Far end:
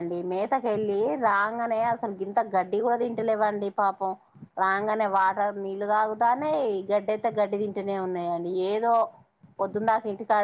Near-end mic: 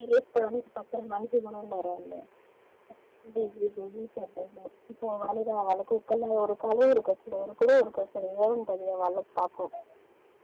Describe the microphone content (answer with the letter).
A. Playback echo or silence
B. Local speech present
B